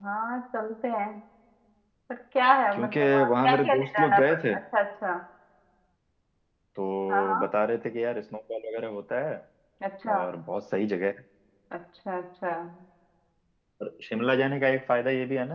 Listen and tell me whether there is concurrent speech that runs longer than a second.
Yes, from 2.8 s

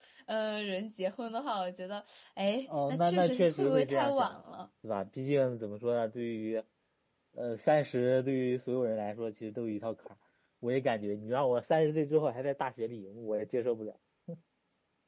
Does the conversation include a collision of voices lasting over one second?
Yes, from 2.9 s

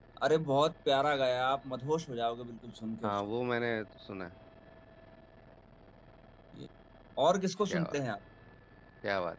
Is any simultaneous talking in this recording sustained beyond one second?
No

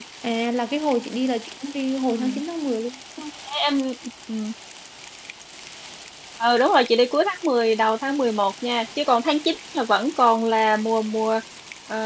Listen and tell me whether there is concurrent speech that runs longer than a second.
No

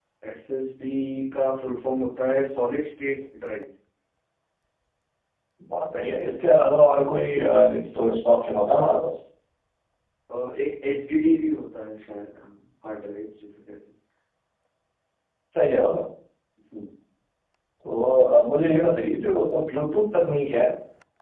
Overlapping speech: No

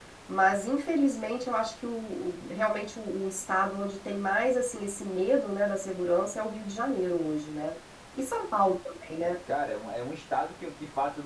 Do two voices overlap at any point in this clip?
No

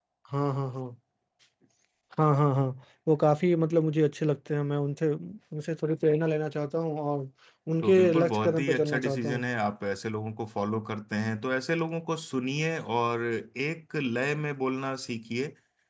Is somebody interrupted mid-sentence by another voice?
Yes, from 7.8 s

